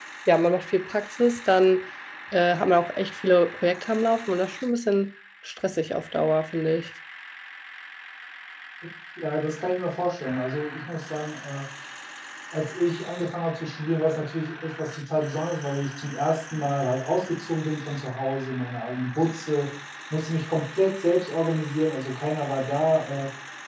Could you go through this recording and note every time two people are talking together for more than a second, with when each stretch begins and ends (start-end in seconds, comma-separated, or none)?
none